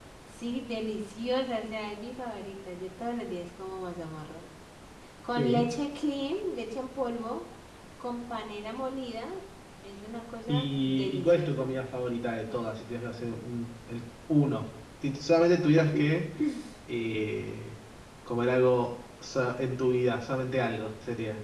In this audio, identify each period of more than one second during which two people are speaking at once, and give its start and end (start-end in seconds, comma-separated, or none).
10.5-11.8